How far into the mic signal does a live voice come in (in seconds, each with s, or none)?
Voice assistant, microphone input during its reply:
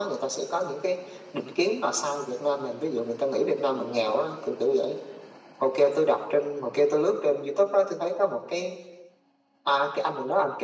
none